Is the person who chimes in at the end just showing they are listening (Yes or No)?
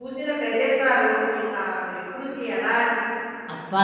No